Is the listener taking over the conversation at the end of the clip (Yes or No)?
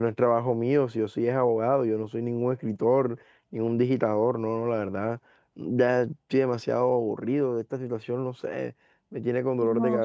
Yes